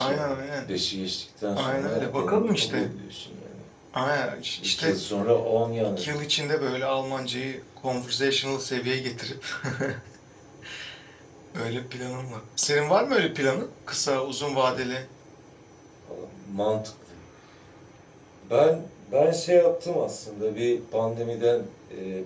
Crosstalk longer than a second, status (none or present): present